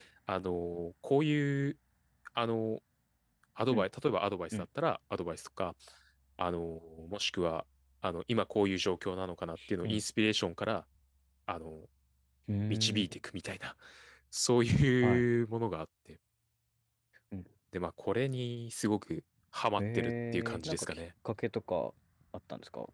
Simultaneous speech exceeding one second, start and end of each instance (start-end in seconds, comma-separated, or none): 19.8-21.0